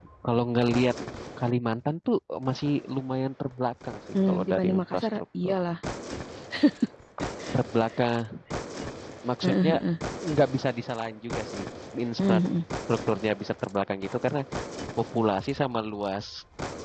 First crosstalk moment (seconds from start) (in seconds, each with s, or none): 4.2 s